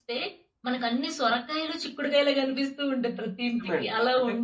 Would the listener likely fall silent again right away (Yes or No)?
No